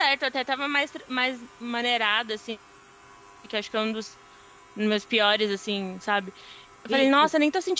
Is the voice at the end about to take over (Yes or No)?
No